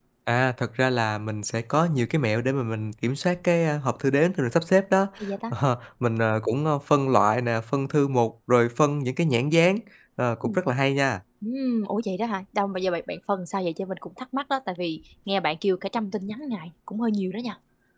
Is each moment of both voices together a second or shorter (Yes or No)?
Yes